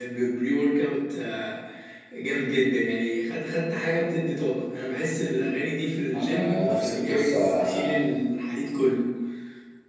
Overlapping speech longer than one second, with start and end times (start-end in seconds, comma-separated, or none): 6.2-8.0